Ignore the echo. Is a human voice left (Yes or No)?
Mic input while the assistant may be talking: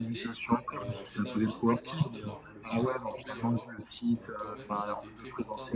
Yes